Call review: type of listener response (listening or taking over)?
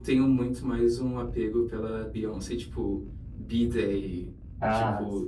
listening